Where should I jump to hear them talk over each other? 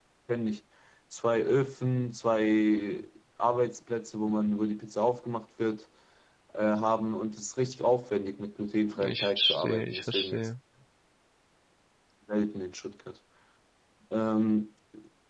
9.0 s

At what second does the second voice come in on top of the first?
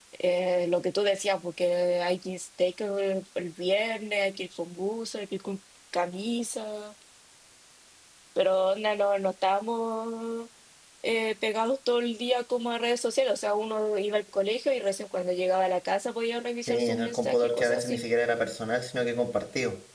16.7 s

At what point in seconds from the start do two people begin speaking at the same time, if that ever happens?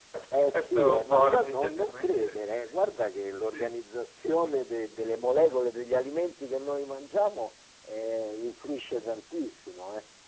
0.5 s

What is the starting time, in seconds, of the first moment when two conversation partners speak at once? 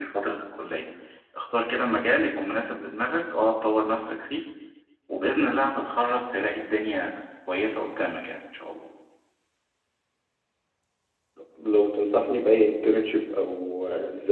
none

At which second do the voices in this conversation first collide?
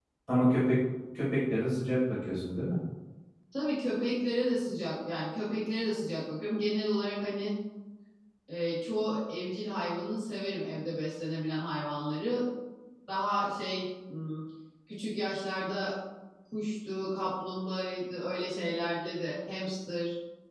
none

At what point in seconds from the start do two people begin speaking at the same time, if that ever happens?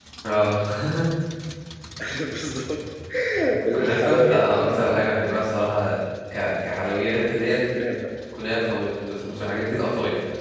3.7 s

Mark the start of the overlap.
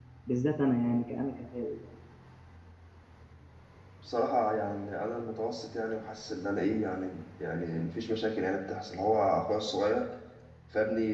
none

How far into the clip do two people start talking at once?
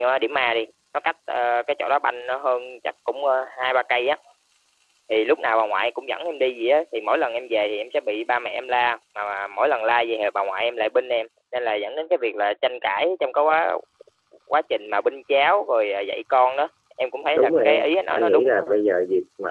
17.3 s

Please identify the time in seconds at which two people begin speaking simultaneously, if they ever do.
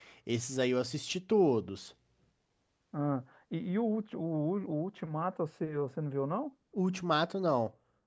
none

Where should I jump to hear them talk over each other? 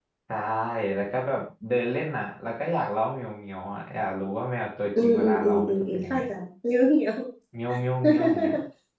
5.0 s

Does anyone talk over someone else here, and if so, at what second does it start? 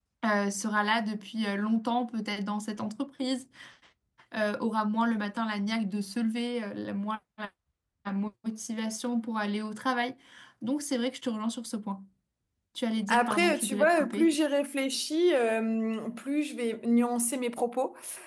13.1 s

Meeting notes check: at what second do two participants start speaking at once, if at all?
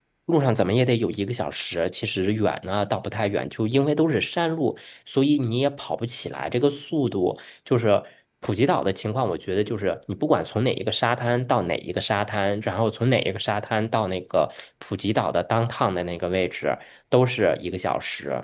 none

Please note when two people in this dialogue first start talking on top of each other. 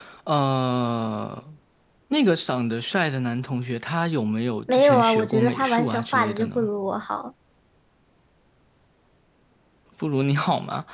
4.7 s

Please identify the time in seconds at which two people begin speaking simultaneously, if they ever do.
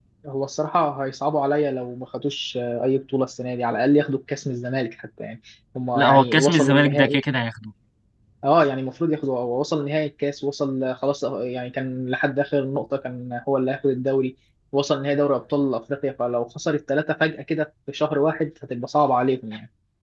6.0 s

